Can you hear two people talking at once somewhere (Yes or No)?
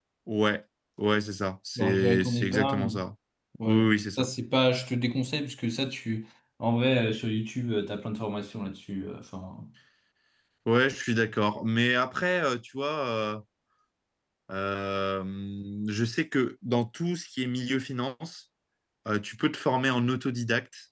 Yes